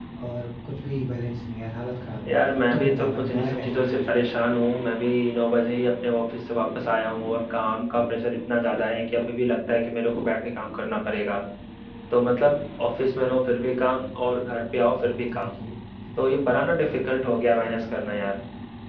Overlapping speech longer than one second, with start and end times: 2.7-4.2

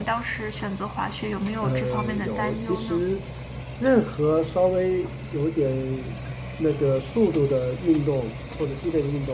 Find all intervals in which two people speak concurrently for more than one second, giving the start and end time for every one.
1.6-3.0

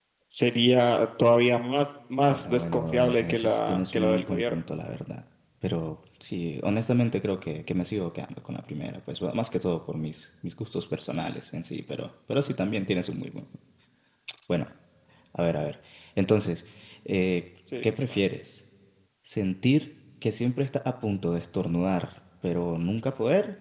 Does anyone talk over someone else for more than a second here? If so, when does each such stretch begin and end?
2.3-4.6

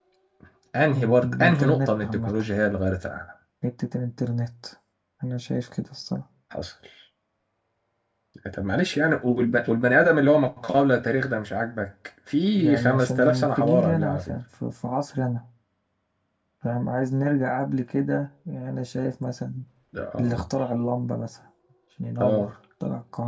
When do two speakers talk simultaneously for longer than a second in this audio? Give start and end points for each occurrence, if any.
1.0-2.3, 12.6-14.3

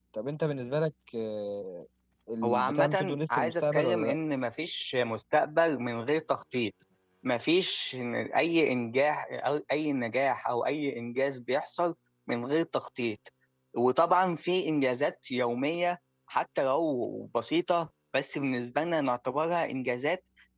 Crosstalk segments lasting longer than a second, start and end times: 2.4-4.2

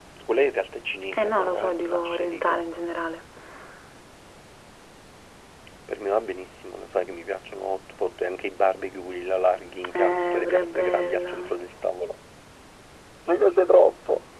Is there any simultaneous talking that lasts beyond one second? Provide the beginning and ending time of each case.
1.1-2.6, 10.0-11.3

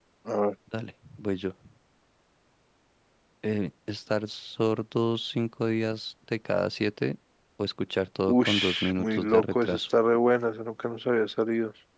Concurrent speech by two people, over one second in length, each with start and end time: 8.3-9.9

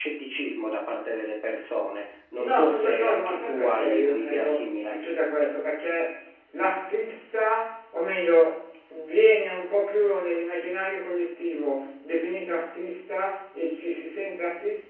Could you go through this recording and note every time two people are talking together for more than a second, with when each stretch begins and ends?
2.4-4.9

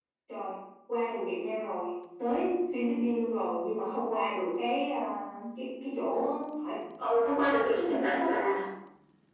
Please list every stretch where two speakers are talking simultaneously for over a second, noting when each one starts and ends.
none

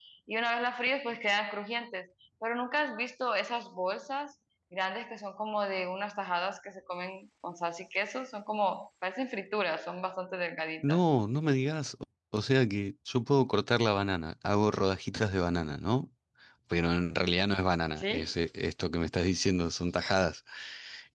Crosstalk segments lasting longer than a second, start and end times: none

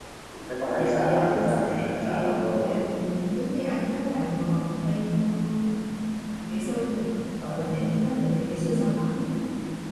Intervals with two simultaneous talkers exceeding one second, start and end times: 0.8-2.8

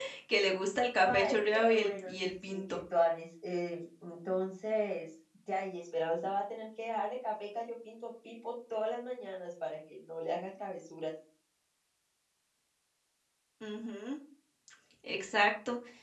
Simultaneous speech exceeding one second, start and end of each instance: 1.0-2.8

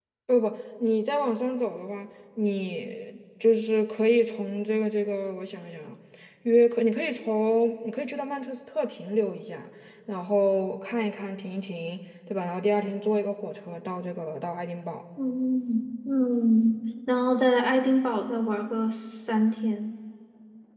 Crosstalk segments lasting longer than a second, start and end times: none

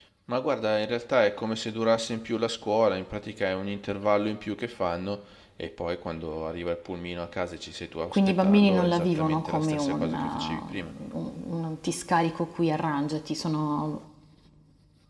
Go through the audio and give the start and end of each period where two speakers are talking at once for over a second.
8.1-10.9

